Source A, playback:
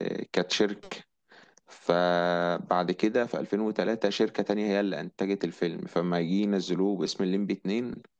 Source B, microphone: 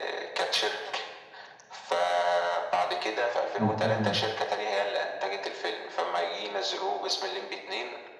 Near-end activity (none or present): present